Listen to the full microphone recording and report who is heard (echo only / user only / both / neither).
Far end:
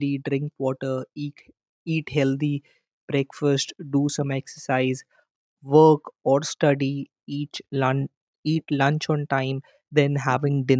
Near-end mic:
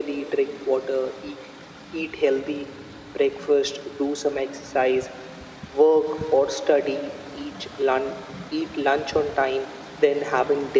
echo only